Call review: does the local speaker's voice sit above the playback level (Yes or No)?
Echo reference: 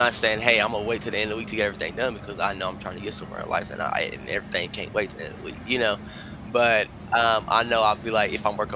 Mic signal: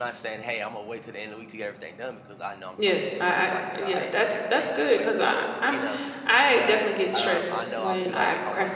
Yes